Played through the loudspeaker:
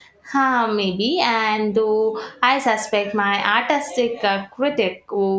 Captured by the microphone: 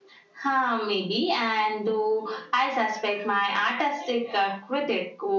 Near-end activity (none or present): none